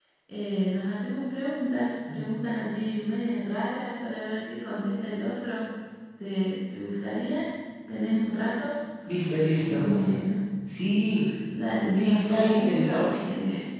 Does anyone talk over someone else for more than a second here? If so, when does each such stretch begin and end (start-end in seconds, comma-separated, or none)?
12.0-13.2